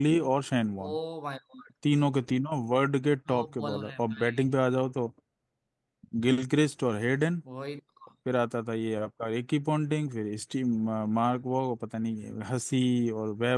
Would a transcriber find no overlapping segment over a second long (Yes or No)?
No